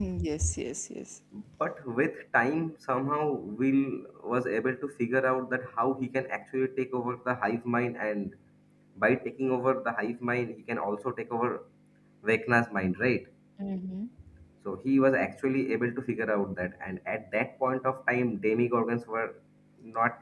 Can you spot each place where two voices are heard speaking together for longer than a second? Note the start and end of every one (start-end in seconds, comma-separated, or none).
none